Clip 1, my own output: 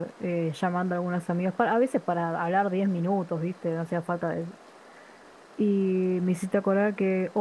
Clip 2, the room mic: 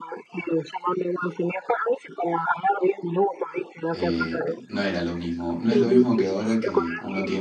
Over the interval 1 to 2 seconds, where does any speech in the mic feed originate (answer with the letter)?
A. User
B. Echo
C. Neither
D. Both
B